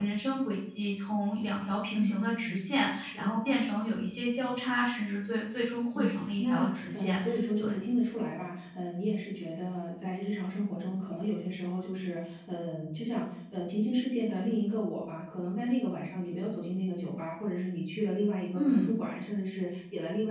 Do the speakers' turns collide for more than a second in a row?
Yes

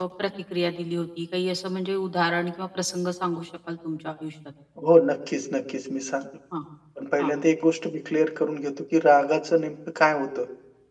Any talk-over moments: No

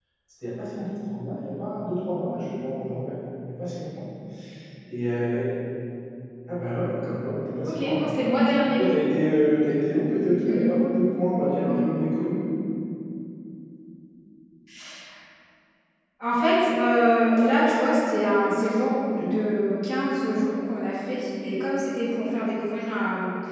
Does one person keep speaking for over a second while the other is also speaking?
No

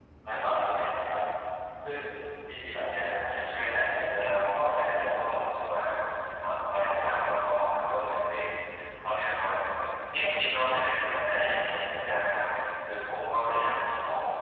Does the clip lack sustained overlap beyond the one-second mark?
No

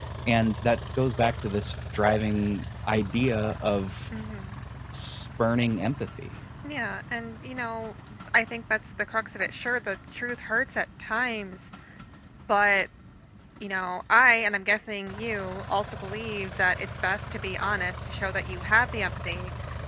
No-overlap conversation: Yes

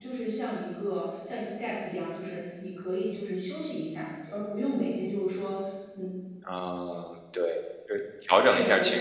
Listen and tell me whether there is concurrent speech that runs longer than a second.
No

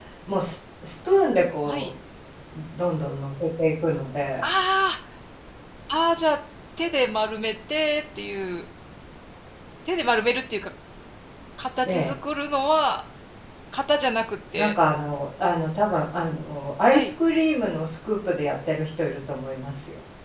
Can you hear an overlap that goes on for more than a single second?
No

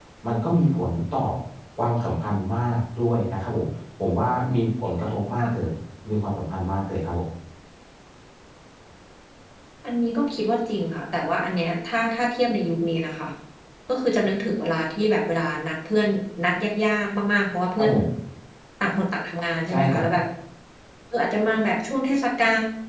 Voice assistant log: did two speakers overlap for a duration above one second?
No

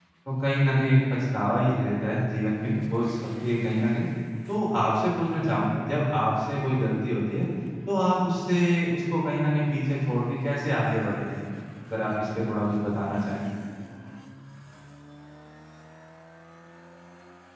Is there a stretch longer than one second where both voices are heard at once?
No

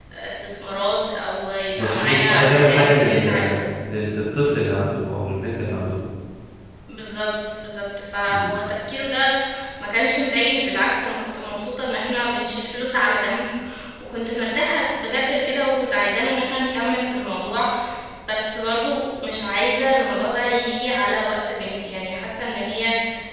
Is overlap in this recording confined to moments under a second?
No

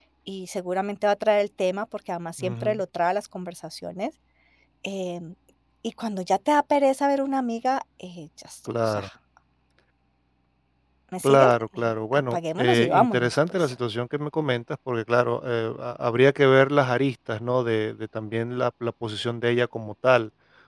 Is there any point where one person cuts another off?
Yes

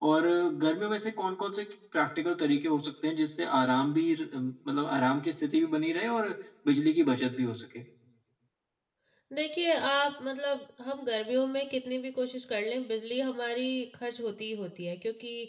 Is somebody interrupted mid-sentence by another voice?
No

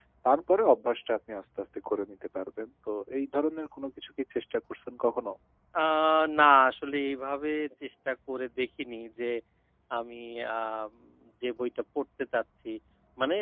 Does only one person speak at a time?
Yes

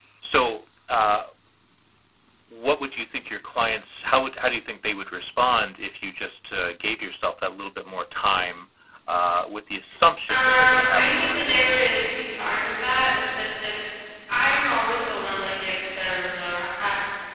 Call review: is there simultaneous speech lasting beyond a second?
Yes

